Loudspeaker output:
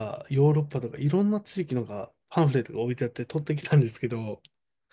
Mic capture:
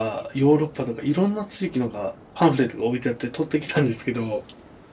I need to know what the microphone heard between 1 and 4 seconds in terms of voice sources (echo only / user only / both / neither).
echo only